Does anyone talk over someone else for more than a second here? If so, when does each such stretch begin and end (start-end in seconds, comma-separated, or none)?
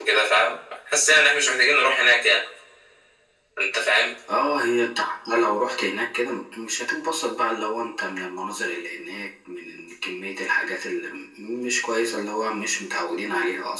none